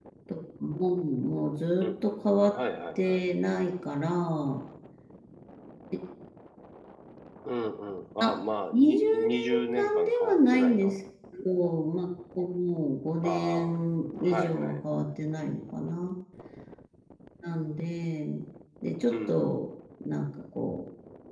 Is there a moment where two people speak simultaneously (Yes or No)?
Yes